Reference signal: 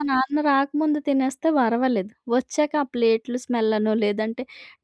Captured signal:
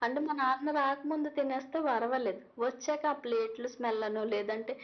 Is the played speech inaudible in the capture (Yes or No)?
No